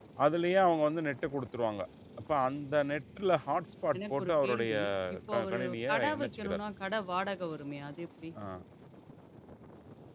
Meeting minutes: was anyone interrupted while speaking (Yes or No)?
Yes